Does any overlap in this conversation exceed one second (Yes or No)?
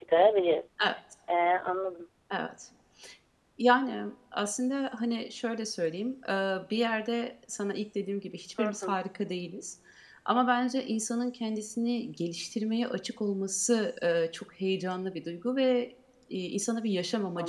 No